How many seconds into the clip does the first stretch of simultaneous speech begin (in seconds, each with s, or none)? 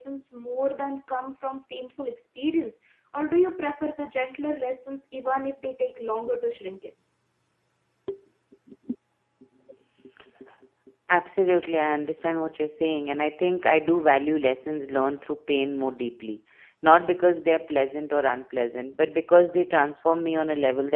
none